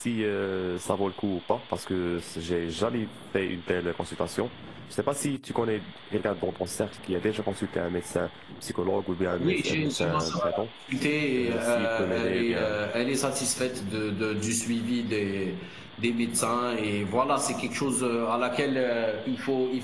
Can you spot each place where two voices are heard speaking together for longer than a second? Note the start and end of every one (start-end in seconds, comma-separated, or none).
9.4-10.6, 11.3-12.8